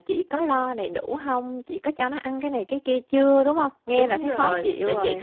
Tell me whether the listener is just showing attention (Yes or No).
No